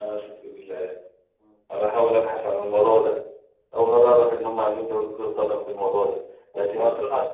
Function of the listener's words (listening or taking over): listening